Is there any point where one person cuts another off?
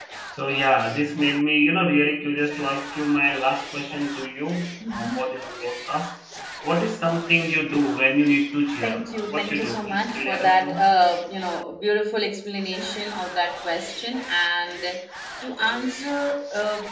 Yes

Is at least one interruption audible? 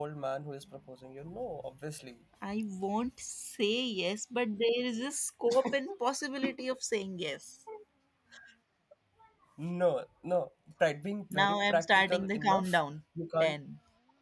Yes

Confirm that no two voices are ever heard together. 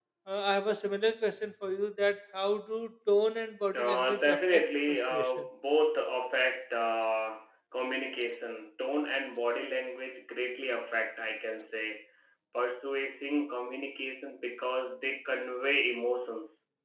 No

